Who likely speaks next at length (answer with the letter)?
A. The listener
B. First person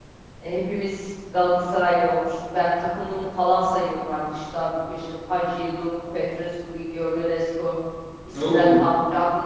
B